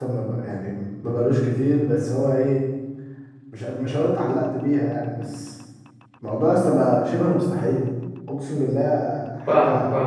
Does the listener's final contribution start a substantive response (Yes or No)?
Yes